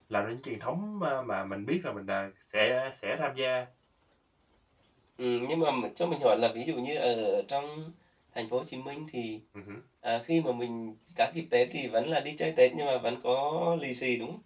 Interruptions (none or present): none